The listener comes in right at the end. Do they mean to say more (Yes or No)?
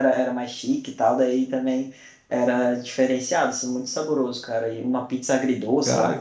No